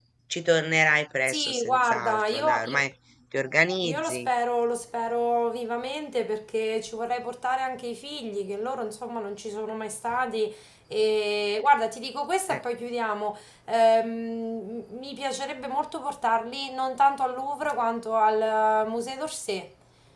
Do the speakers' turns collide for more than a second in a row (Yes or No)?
Yes